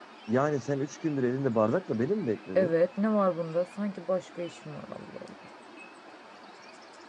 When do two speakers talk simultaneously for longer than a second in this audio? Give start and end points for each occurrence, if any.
none

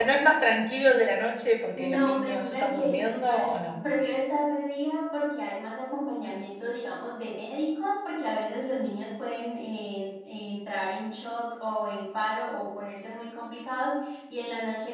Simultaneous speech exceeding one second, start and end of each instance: 1.8-3.7

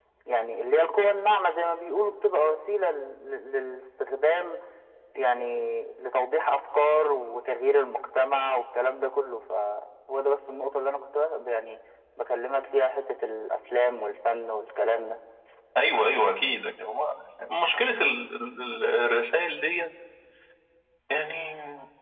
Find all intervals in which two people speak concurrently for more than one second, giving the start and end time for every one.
none

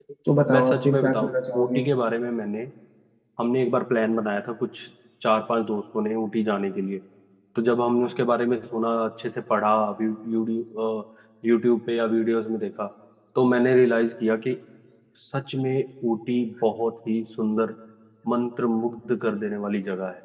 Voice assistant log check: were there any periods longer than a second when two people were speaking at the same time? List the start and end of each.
0.5-1.9

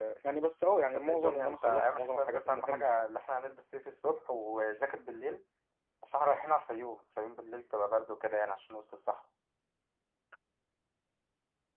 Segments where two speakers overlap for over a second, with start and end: 0.9-3.0

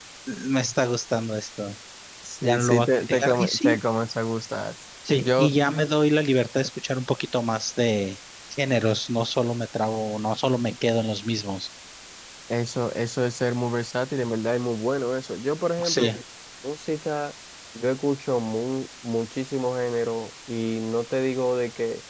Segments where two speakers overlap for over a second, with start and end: 2.4-3.8

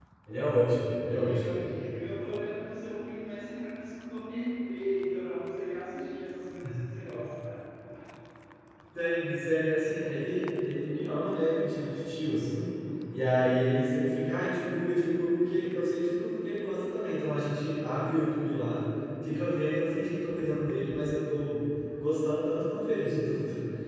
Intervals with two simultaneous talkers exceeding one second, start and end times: none

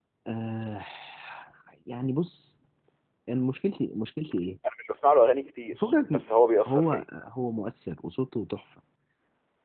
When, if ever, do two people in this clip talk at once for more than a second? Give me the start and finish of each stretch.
none

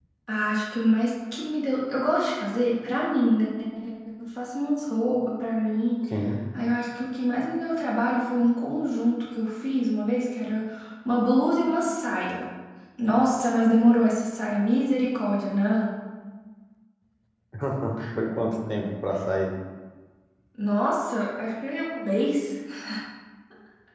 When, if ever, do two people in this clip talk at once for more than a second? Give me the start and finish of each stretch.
none

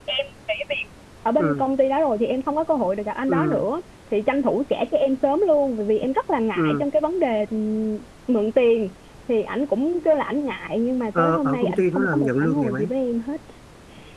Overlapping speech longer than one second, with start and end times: 11.2-12.9

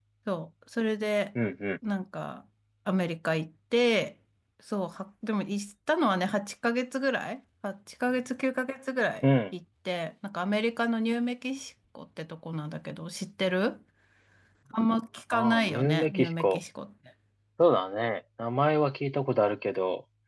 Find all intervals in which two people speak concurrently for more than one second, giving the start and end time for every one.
15.3-16.6

